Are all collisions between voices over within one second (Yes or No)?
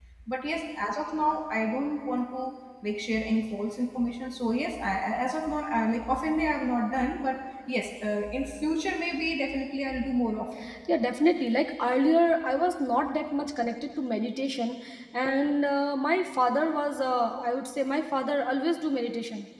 Yes